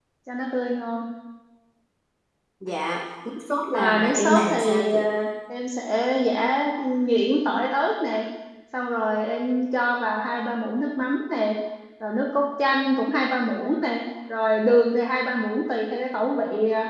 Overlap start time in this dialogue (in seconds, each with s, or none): 3.7 s